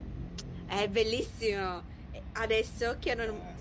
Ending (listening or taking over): listening